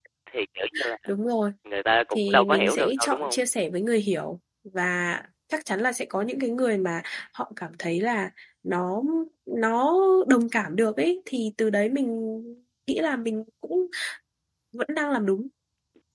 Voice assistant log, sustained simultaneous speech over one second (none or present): present